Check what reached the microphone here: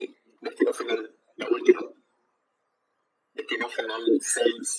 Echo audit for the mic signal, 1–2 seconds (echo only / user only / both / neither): echo only